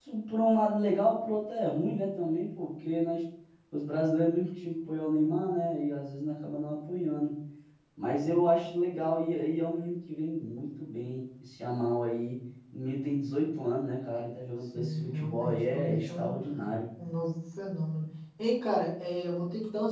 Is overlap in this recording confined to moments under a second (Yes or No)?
No